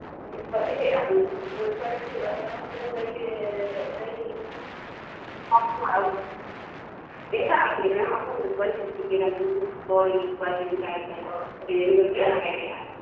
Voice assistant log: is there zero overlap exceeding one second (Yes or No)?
Yes